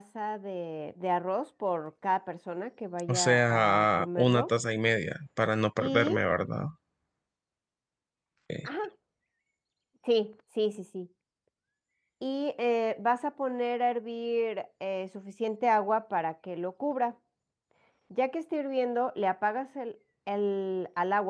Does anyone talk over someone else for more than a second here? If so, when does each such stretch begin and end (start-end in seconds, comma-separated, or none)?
3.1-4.5